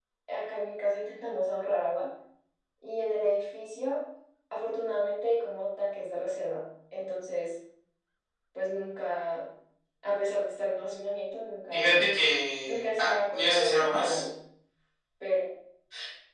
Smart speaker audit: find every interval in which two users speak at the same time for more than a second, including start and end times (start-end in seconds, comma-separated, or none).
12.7-14.2